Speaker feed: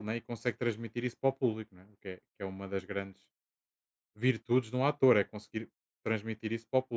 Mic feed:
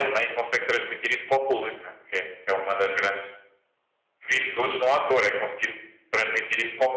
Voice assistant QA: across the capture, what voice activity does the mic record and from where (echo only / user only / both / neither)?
echo only